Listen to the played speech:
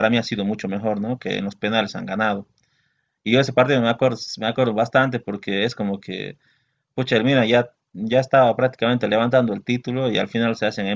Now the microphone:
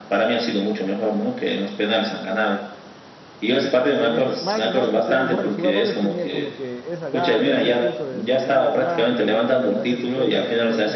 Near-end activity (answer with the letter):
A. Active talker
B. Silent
A